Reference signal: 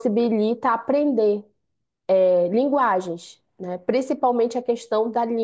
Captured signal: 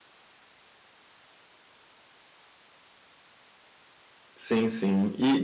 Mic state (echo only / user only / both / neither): user only